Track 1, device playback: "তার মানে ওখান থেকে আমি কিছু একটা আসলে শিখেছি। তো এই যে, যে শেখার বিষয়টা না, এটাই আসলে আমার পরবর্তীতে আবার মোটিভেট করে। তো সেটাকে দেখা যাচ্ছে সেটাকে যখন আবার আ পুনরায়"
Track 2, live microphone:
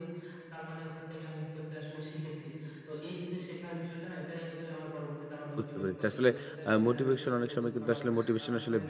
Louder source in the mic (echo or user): user